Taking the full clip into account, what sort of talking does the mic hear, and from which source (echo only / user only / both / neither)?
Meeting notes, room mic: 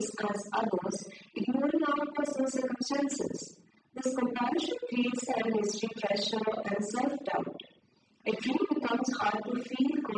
echo only